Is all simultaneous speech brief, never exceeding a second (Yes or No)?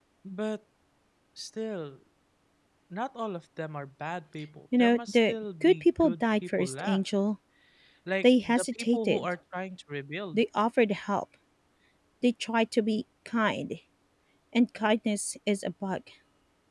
No